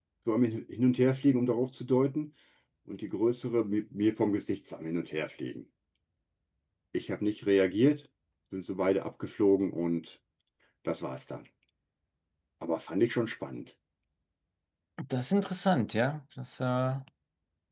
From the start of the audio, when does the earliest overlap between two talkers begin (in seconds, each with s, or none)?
none